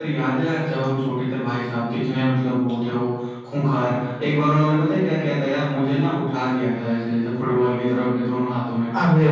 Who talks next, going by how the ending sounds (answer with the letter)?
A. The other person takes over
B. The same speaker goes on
B